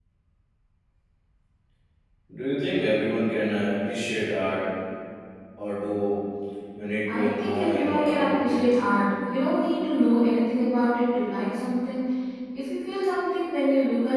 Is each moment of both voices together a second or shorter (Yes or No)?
No